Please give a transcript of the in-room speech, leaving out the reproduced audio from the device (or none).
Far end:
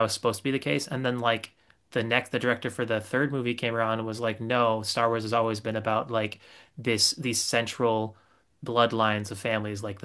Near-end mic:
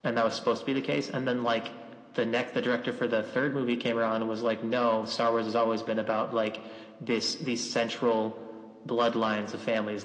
none